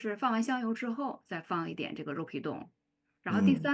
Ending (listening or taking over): listening